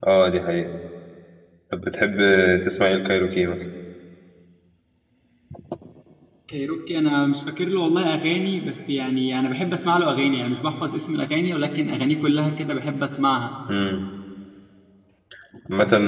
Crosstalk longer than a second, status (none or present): none